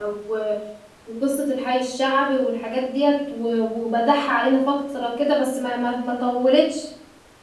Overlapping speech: No

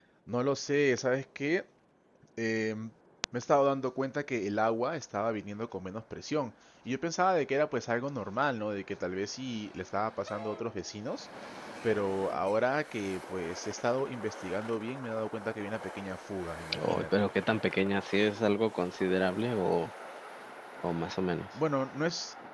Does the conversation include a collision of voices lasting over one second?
No

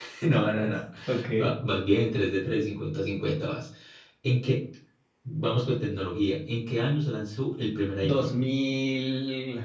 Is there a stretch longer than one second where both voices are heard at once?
No

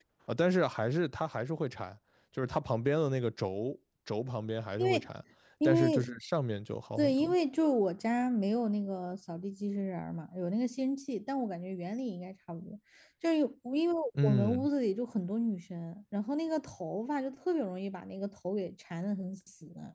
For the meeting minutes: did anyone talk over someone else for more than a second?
No

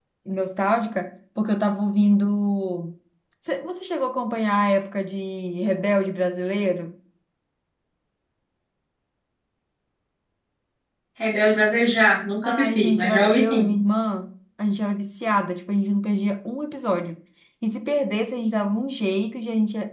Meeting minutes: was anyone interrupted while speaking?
Yes, from 12.4 s

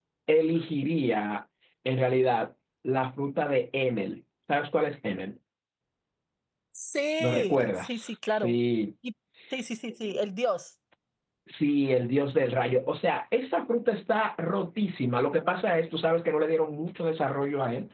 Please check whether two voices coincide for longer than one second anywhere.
Yes, from 7.2 s

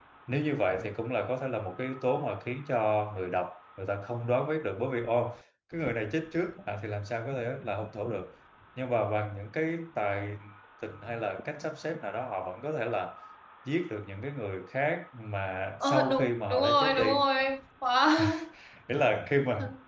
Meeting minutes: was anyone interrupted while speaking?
Yes, from 15.8 s

